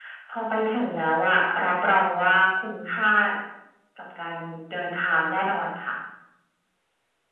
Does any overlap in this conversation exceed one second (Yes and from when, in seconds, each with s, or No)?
No